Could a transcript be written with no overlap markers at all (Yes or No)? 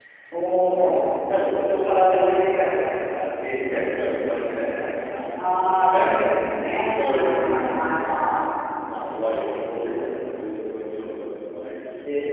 No